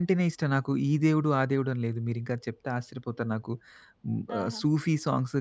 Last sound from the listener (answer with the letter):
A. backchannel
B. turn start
A